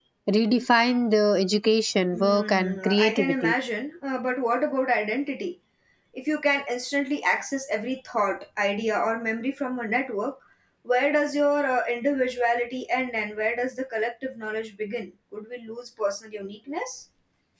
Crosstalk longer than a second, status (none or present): present